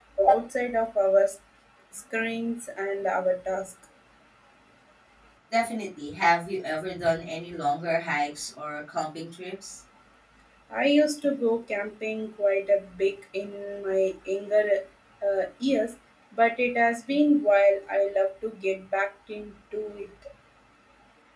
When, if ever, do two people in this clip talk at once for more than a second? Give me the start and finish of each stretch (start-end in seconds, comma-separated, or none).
none